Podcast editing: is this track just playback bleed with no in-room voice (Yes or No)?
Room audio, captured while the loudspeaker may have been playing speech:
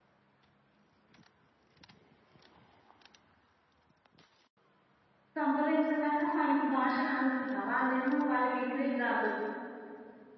No